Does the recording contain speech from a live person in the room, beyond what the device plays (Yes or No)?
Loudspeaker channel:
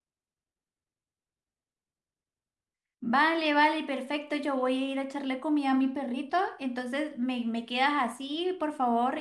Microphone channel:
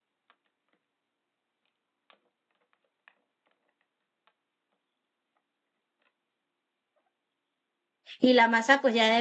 Yes